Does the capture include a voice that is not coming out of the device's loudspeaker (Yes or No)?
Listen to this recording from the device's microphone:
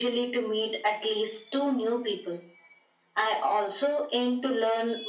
No